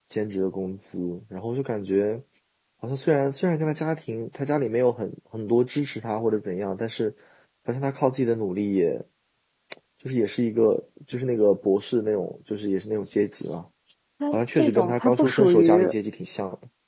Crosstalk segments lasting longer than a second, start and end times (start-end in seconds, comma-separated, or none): 14.3-15.9